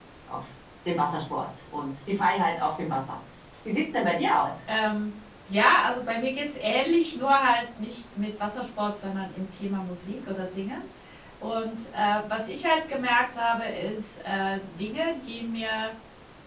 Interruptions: none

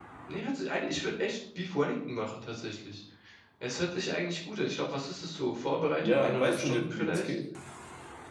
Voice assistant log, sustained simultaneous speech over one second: present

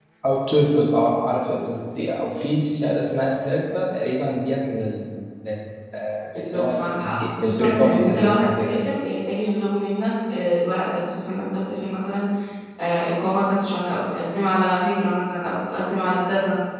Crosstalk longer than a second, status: present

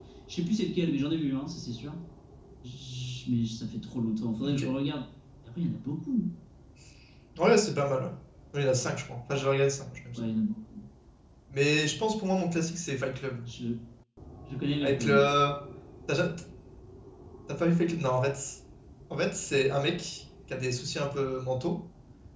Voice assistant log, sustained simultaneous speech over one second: none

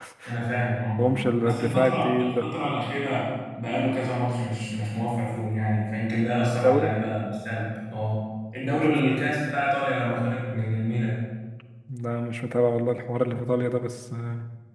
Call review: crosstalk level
present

